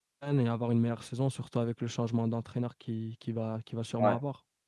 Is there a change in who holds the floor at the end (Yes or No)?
Yes